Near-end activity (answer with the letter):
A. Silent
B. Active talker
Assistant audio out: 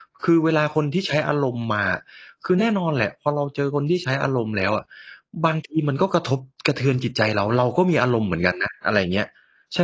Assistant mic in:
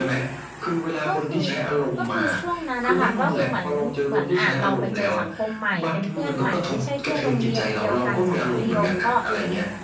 B